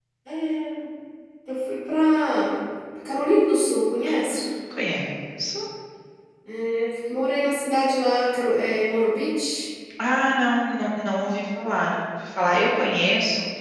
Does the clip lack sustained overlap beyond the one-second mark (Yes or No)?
Yes